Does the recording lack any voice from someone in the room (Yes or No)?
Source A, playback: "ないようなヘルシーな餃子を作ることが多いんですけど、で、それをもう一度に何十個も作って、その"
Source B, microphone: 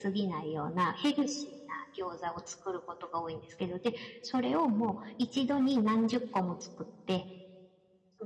Yes